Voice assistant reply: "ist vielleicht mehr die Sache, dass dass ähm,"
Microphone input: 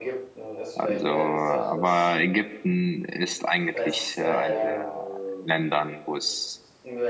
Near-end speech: present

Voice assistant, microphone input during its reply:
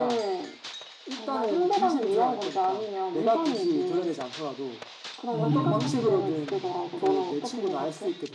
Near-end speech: present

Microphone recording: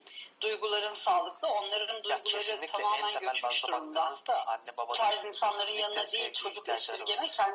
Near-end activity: none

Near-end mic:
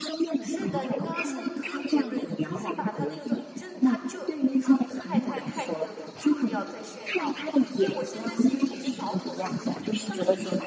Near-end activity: present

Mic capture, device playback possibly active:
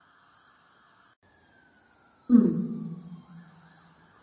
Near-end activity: present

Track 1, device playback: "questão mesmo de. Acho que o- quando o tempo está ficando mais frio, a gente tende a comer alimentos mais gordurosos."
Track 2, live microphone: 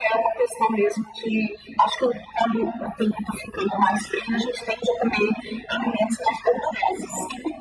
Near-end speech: none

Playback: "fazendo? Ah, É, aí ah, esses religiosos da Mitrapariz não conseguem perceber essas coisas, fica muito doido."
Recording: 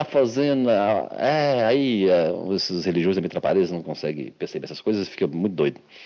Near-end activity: none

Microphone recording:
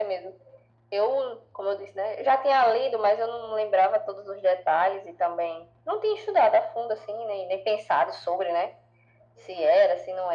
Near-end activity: none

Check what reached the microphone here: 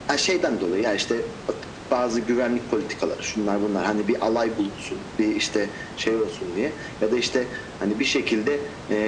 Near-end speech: none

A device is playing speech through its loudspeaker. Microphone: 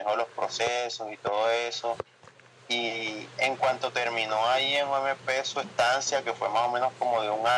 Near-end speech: none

